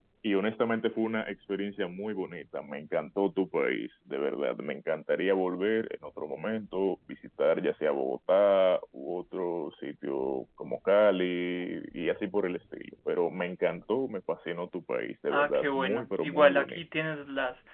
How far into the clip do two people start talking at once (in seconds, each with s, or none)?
15.3 s